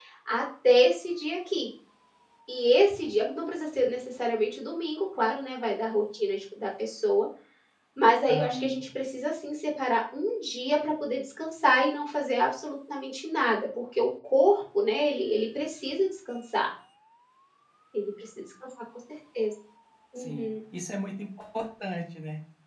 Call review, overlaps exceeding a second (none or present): none